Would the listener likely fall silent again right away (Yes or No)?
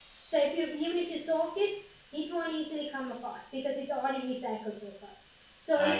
Yes